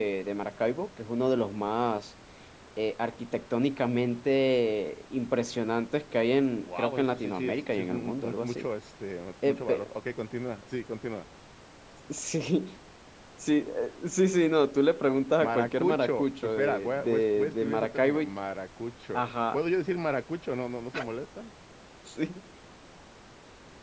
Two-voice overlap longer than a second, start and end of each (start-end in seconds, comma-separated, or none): 6.7-8.7, 15.4-18.3